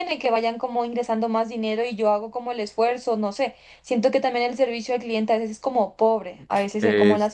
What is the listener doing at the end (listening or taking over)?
taking over